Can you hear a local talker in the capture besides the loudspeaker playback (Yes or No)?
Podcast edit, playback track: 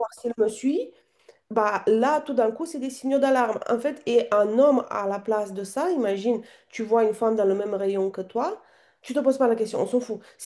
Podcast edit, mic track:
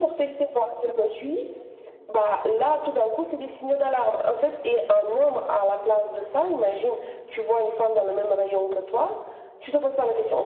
No